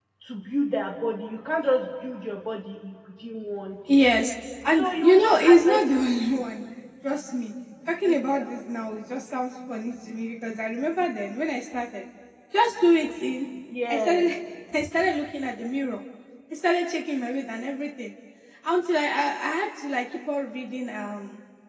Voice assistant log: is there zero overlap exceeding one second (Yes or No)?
No